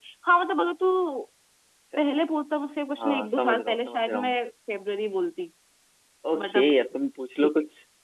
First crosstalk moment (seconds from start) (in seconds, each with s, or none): 3.0 s